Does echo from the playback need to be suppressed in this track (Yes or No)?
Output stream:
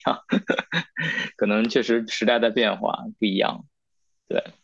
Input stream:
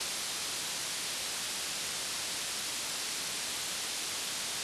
No